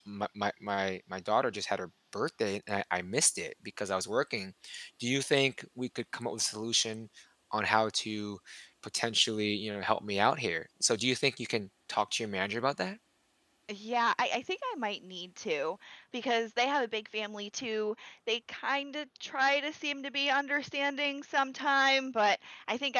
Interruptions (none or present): none